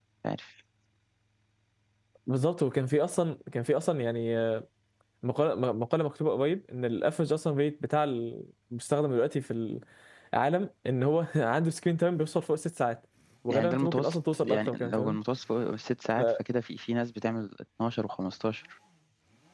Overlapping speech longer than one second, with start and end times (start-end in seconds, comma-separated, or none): 13.5-15.2